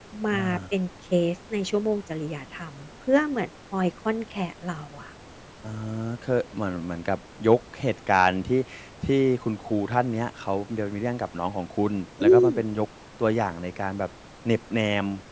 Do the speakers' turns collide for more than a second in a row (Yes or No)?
No